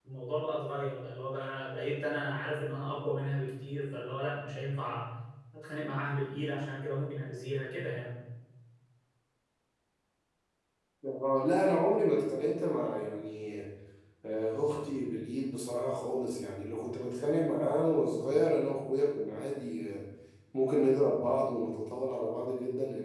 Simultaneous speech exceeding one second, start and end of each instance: none

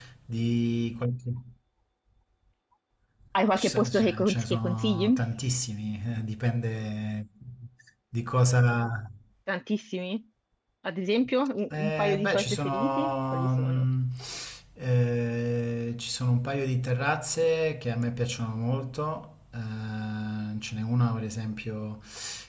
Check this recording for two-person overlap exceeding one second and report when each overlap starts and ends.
3.5-5.2, 11.7-13.8

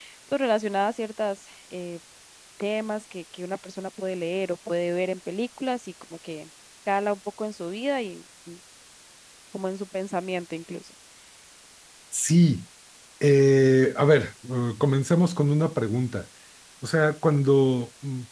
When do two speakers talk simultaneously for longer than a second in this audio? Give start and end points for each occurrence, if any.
none

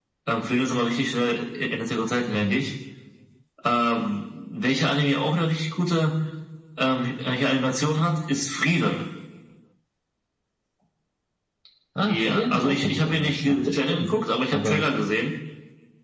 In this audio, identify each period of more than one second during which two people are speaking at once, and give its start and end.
12.0-14.1

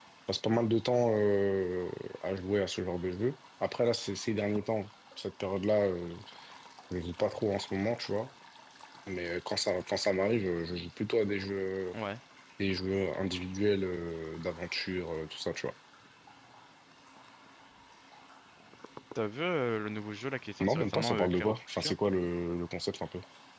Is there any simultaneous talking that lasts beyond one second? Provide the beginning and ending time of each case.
20.6-21.9

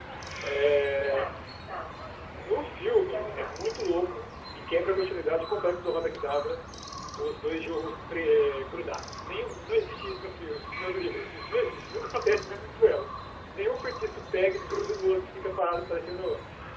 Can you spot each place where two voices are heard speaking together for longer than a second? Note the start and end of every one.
2.3-3.6

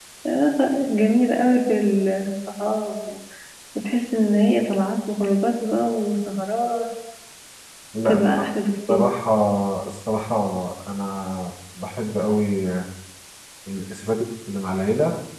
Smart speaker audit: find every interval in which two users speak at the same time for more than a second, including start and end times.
none

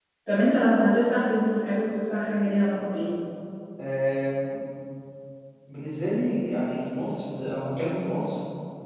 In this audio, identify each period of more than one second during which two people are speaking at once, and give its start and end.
none

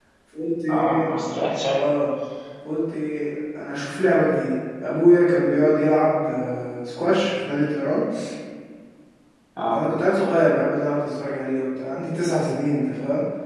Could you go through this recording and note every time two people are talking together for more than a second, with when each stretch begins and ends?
none

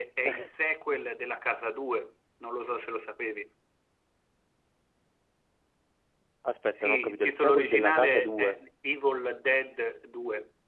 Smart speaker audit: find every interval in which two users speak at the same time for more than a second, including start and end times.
6.8-8.6

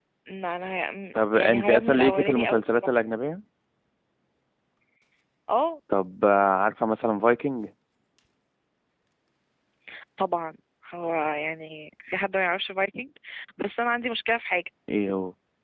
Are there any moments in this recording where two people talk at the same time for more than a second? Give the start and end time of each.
1.3-2.9

